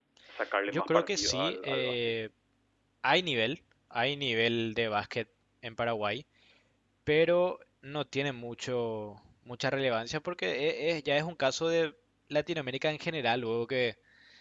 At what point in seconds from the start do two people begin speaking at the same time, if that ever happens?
0.7 s

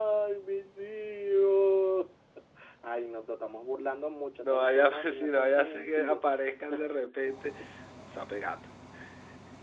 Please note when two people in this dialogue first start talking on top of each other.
4.4 s

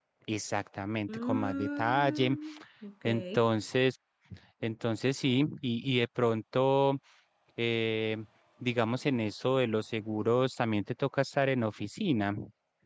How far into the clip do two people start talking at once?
1.1 s

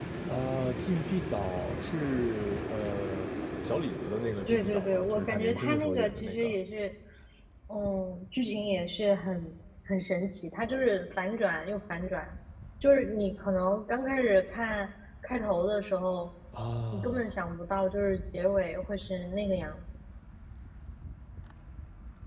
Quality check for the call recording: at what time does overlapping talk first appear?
4.5 s

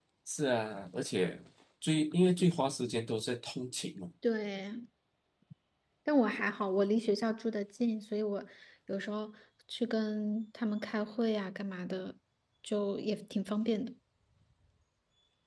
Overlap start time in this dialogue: none

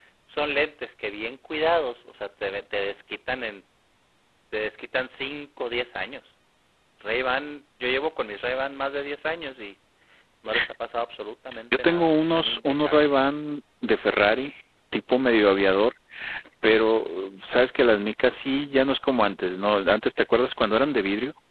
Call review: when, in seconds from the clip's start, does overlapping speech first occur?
11.8 s

